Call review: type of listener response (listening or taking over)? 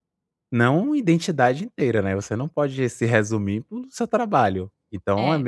listening